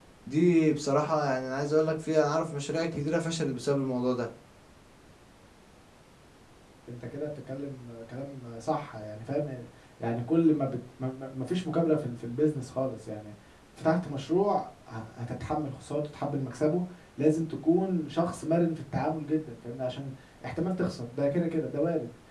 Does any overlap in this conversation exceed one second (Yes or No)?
No